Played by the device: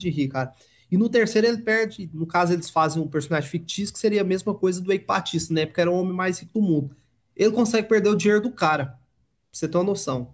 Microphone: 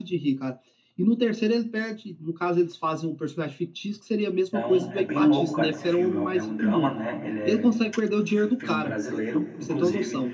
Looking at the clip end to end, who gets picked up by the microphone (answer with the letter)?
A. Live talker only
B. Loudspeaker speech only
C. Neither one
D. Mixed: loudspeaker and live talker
D